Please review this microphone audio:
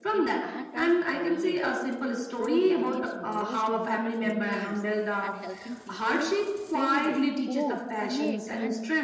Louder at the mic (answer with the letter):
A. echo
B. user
A